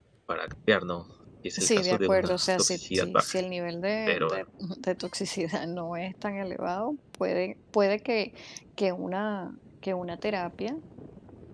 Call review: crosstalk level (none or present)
present